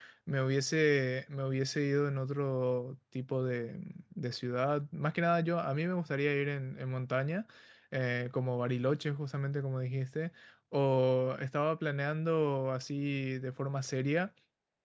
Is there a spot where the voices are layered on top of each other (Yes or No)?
No